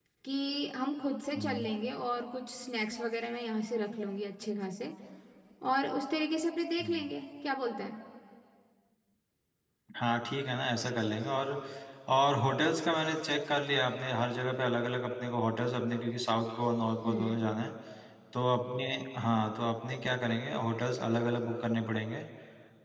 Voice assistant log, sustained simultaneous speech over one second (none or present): none